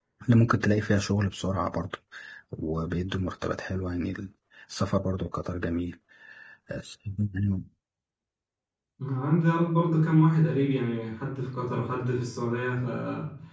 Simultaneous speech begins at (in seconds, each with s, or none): none